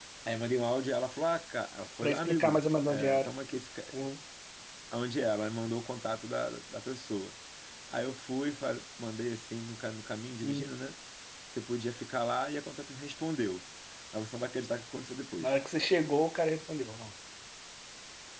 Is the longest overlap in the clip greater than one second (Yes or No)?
Yes